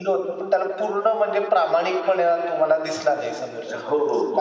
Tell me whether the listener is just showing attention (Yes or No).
No